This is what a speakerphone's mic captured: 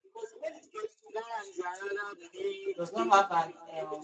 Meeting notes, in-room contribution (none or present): present